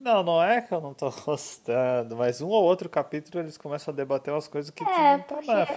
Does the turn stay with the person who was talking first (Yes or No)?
No